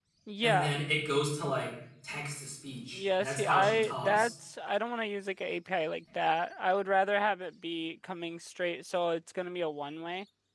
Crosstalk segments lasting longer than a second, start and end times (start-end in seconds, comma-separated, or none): 2.9-4.3